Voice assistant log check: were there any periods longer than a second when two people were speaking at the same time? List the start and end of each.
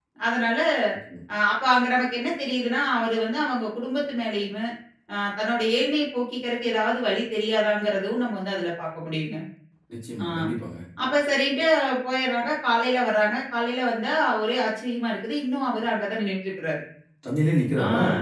none

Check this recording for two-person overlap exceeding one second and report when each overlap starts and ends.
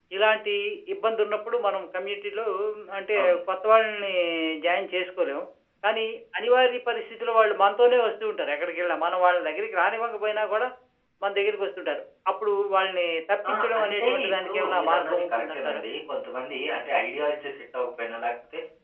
13.5-15.8

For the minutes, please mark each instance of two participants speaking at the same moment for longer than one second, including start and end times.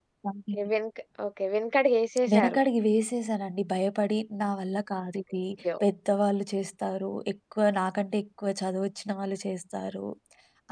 none

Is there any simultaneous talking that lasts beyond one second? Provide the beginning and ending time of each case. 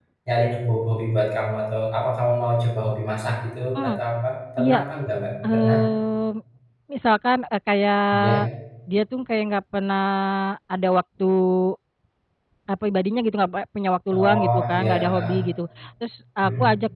14.1-15.4

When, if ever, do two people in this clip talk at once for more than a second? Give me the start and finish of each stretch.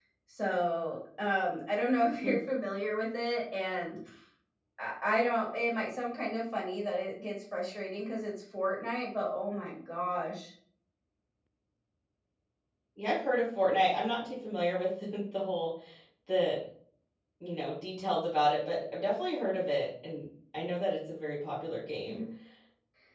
none

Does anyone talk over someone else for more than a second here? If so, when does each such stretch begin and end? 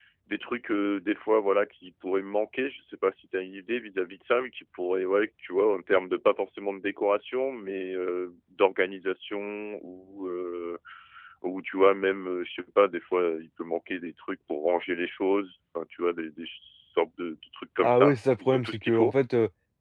17.8-19.1

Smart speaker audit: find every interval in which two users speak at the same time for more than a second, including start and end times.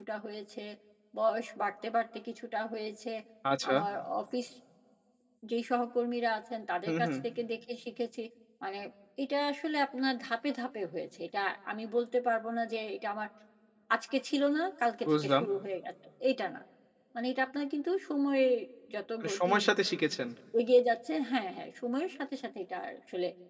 none

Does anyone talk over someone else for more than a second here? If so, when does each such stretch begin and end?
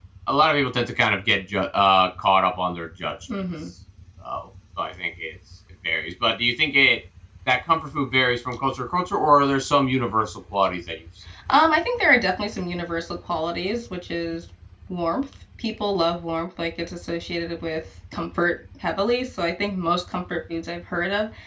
none

